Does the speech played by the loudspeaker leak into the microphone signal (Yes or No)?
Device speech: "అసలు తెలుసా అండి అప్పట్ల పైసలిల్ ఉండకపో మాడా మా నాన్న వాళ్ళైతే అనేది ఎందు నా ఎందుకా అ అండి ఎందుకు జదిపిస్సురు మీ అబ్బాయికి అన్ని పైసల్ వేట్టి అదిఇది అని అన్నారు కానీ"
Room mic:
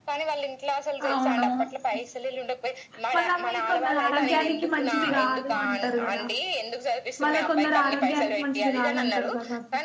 Yes